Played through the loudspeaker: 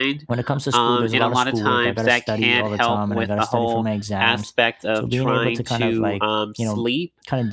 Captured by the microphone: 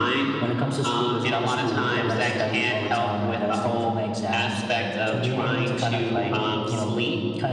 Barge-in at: none

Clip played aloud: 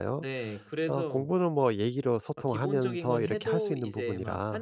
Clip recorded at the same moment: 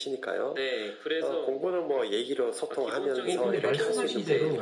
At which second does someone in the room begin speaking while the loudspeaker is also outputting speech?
3 s

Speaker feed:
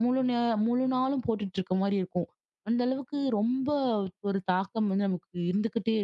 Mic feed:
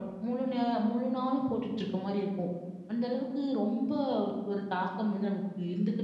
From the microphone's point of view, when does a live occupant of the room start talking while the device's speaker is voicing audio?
none

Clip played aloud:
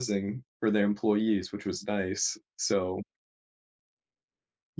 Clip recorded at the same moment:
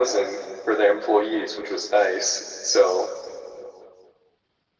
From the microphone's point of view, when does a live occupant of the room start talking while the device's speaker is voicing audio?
none

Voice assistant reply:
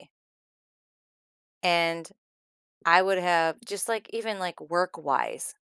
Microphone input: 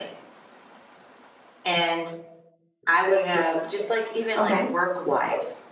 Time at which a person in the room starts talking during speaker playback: 4 s

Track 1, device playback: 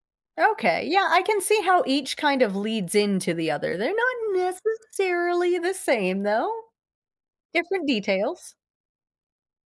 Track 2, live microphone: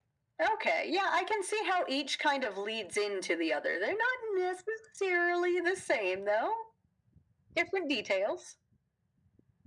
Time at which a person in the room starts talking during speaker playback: none

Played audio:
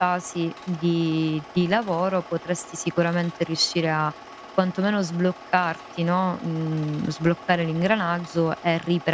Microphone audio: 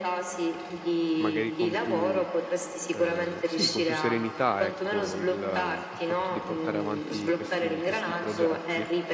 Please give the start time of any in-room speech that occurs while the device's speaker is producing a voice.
1 s

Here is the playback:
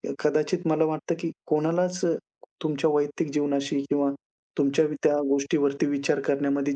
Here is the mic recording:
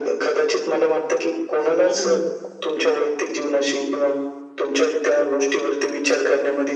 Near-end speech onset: 2 s

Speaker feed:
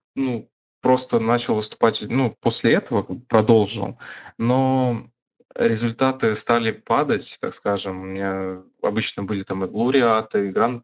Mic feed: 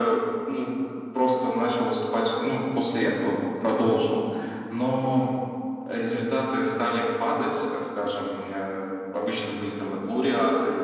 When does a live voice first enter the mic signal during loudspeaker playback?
none

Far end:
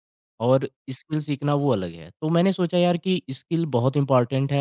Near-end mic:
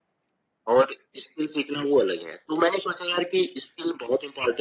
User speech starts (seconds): none

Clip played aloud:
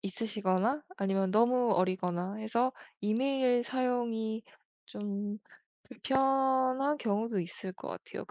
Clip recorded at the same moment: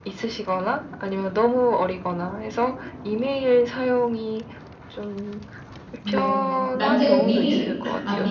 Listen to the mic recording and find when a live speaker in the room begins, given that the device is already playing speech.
6 s

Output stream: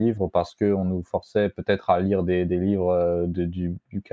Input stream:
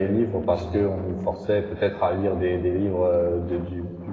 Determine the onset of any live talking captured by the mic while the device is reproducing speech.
1 s

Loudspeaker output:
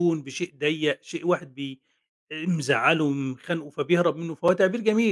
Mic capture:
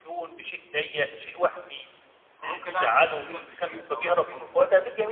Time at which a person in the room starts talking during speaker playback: 2 s

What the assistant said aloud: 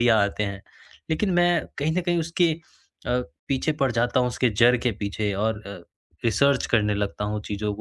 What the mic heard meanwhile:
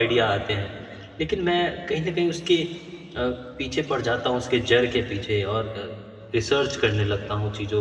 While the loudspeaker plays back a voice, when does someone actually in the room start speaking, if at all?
none

